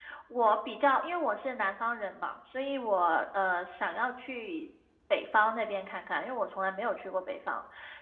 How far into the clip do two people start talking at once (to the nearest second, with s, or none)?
none